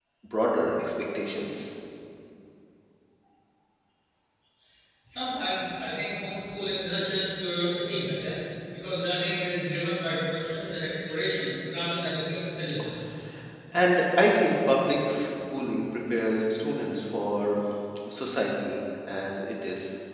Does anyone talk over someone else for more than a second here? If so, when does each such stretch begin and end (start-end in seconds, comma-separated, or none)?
none